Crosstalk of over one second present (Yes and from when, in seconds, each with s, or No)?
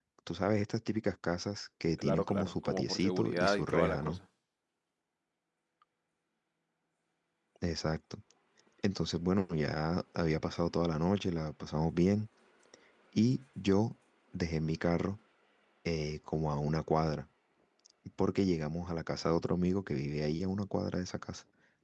Yes, from 2.0 s